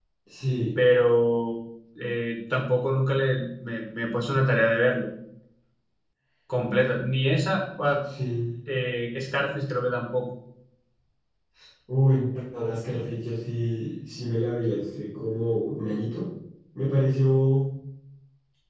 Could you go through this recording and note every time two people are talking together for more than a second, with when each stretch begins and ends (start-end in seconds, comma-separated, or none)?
none